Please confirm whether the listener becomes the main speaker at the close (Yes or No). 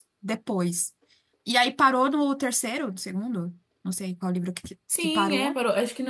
Yes